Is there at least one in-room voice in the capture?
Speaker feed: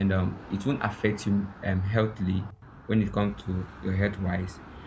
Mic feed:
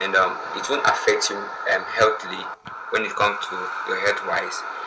No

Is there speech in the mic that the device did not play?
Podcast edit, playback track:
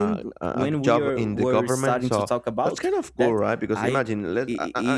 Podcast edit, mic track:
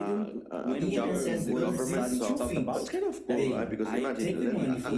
Yes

